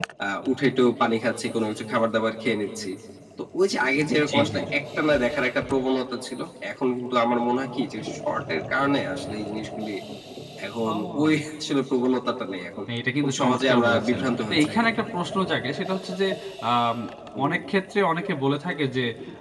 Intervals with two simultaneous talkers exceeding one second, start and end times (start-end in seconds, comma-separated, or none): 13.2-14.8